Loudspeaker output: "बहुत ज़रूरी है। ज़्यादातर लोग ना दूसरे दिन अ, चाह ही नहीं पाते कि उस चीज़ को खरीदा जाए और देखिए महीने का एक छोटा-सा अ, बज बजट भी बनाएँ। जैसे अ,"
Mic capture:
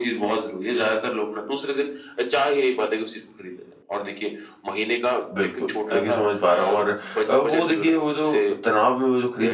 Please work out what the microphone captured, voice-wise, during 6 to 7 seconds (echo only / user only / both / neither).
both